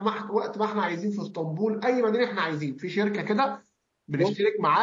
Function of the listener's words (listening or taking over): listening